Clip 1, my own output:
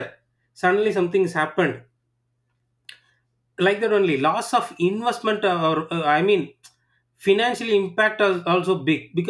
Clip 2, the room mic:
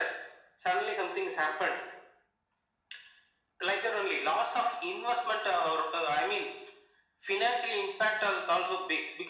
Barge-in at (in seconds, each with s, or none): none